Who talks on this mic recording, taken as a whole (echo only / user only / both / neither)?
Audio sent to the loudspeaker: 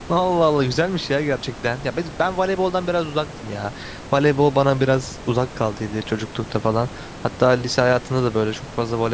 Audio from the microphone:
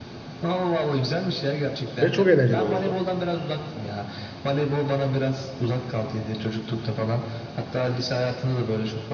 both